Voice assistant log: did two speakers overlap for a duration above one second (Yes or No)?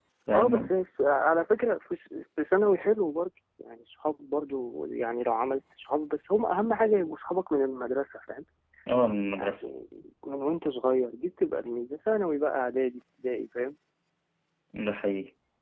No